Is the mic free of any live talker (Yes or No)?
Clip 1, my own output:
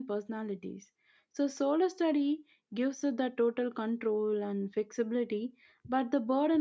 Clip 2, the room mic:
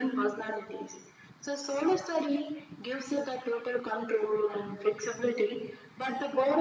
Yes